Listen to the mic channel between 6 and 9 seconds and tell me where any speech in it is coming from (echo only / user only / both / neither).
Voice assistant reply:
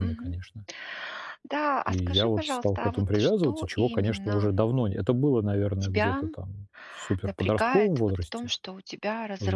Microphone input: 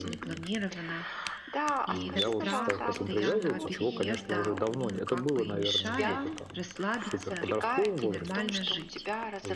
both